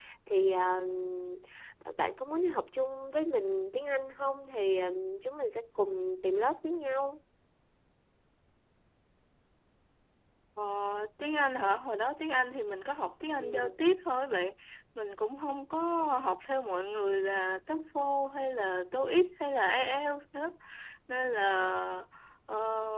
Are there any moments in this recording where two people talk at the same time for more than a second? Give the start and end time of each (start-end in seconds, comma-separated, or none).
none